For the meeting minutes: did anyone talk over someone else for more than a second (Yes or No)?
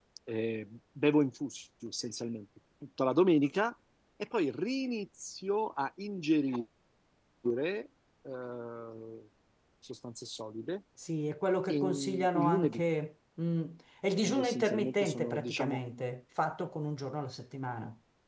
Yes